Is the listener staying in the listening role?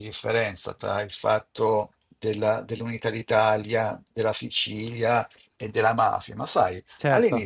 Yes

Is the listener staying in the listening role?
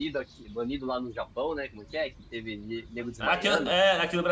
No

